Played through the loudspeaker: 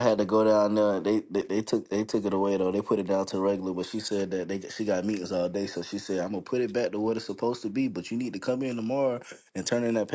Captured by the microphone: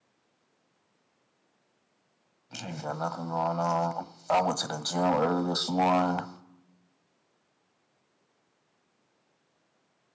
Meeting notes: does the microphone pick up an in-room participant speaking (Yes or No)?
Yes